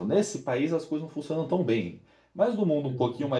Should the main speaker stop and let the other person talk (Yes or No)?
No